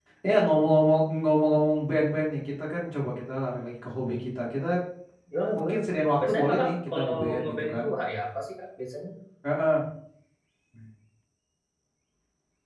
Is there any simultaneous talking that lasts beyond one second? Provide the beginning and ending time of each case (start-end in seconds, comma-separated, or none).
6.2-7.8